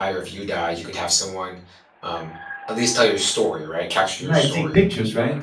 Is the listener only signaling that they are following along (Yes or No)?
No